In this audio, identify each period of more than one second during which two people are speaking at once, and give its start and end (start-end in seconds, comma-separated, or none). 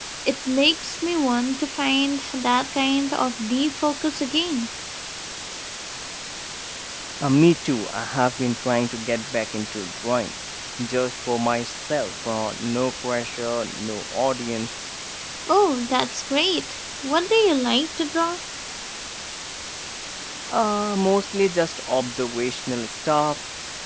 none